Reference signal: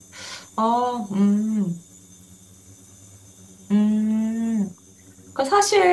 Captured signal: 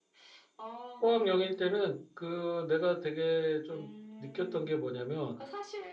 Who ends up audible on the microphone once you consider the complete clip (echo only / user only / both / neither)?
both